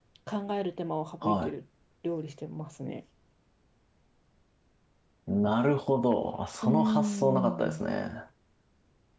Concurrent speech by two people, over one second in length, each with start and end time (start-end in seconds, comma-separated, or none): 6.6-7.8